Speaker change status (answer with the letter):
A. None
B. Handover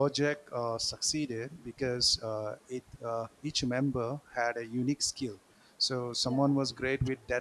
A